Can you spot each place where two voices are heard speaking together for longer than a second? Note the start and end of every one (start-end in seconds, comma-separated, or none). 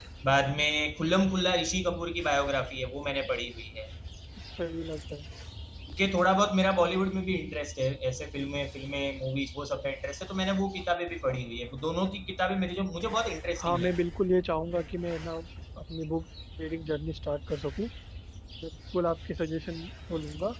none